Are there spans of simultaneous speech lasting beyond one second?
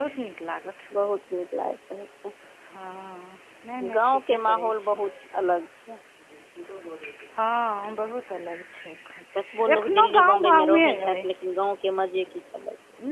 Yes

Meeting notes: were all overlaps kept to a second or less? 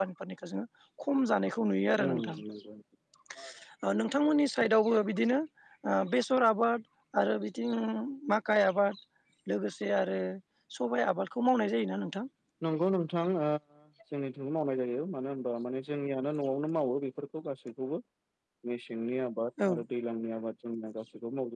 Yes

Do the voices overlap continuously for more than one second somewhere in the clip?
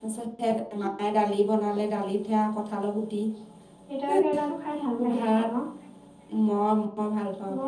No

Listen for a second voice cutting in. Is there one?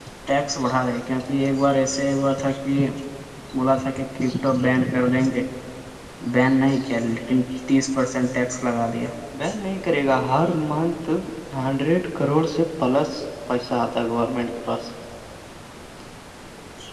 No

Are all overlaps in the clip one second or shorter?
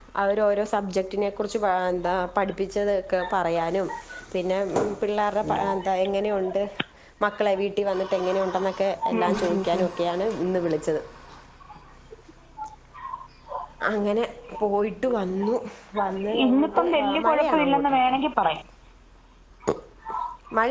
No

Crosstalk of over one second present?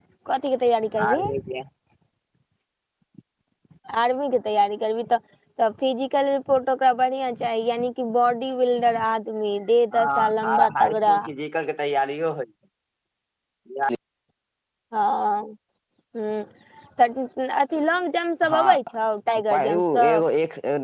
Yes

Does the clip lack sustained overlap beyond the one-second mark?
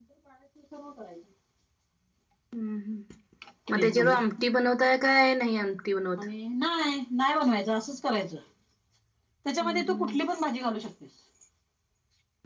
Yes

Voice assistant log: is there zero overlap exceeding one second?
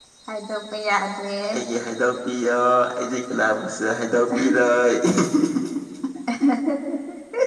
Yes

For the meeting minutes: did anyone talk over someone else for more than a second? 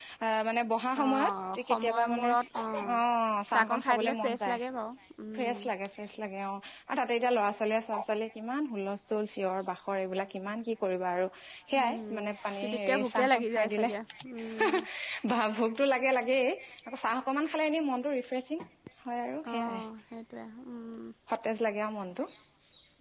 Yes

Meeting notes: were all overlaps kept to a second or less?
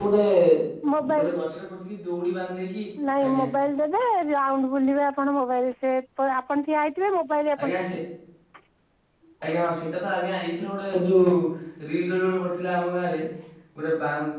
Yes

